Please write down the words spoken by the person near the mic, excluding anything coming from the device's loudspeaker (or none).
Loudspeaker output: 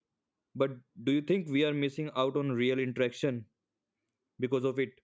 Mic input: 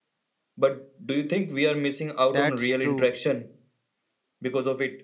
That's true.